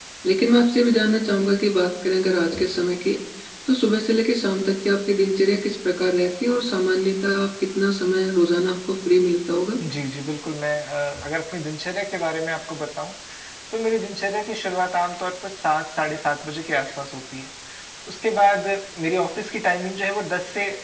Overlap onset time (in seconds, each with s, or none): none